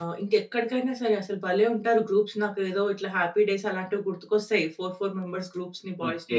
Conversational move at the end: taking over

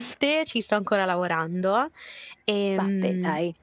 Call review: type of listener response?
listening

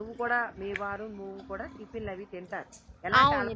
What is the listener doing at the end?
taking over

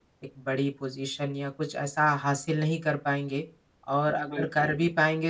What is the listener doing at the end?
listening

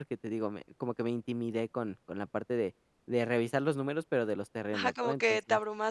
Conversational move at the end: taking over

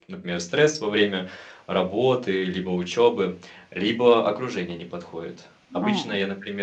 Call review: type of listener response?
listening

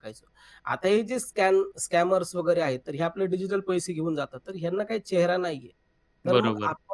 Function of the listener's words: listening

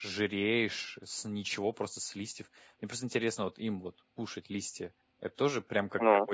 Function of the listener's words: listening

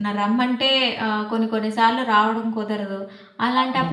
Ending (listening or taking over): listening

